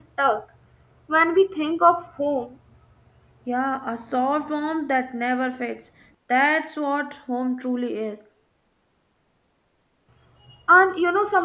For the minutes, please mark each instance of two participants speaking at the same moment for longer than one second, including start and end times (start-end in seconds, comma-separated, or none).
none